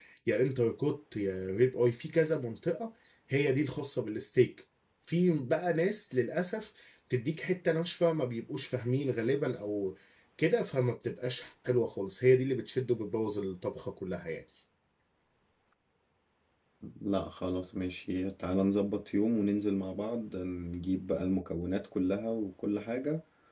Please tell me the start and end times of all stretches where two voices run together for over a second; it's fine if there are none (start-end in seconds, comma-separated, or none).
none